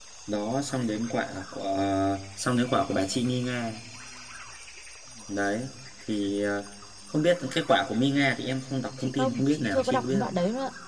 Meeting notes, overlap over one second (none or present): present